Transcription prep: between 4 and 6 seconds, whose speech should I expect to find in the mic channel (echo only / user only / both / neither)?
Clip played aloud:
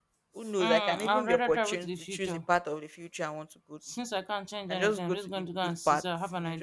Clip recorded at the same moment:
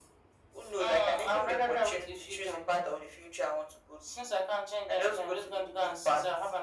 echo only